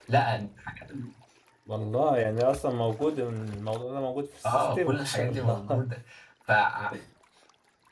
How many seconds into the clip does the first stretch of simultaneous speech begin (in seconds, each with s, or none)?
4.4 s